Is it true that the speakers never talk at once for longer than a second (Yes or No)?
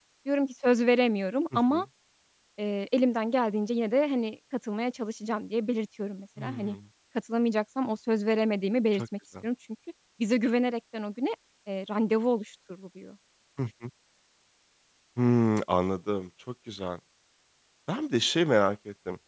Yes